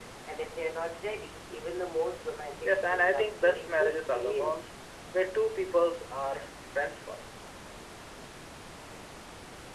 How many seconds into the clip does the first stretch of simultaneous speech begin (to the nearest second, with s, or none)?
3 s